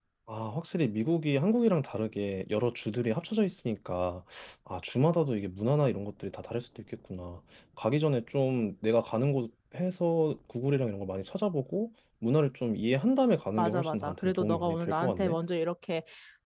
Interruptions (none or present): present